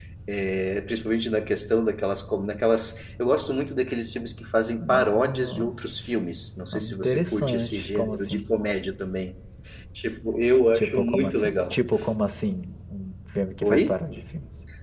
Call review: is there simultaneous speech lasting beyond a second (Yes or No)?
Yes